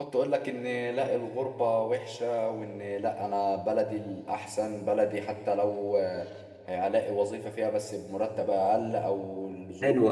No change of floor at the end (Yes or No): No